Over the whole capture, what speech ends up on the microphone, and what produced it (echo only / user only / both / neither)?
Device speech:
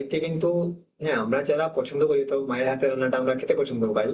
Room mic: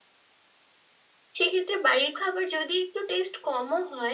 user only